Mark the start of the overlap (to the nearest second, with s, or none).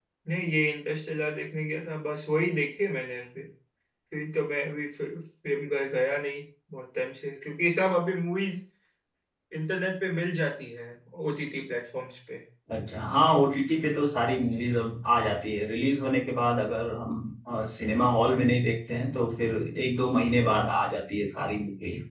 none